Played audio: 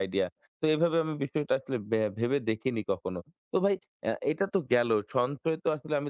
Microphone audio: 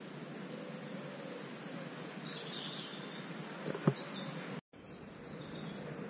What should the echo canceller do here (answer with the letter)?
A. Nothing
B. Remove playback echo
A